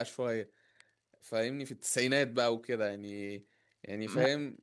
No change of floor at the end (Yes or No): Yes